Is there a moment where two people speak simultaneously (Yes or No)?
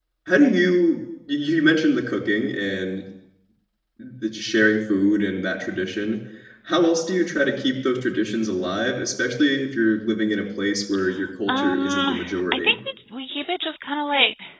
Yes